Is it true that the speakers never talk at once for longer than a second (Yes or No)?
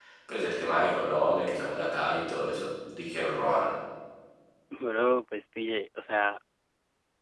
Yes